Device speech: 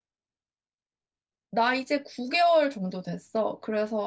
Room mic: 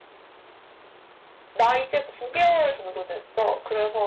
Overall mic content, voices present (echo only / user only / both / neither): echo only